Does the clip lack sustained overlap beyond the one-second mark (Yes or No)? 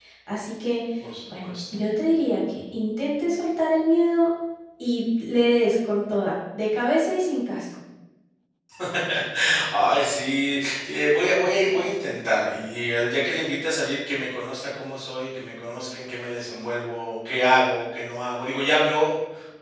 Yes